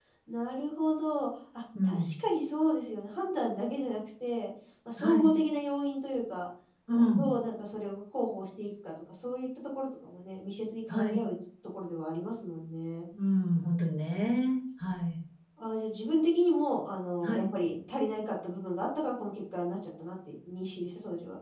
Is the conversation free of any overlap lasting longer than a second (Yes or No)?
Yes